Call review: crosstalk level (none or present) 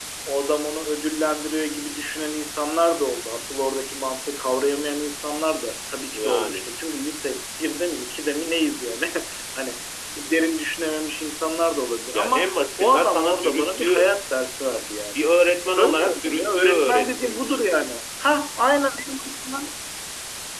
present